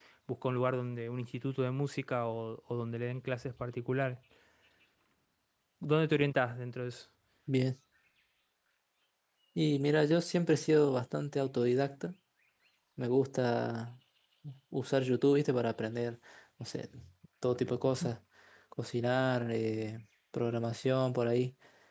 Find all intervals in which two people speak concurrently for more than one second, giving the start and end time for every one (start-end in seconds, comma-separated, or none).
none